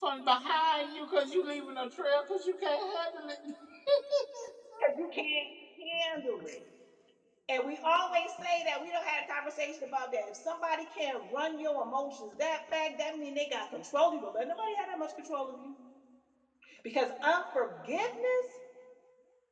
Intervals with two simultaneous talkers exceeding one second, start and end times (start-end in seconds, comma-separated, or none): none